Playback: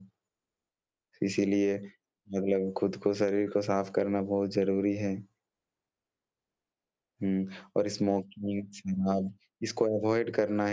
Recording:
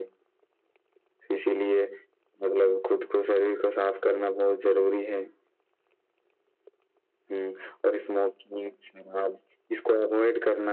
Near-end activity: none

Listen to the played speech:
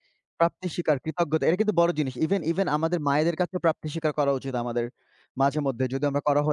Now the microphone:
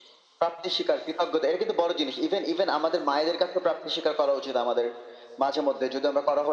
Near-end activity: none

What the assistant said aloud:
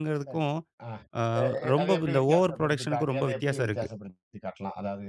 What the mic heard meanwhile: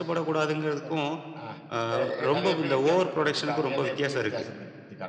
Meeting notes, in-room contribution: none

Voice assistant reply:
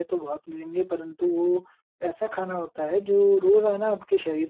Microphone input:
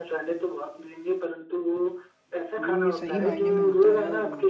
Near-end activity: present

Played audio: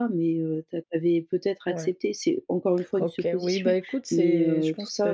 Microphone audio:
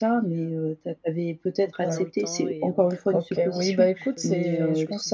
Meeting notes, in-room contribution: present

